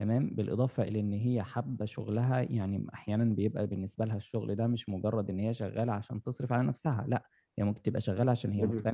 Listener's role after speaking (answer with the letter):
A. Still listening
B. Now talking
A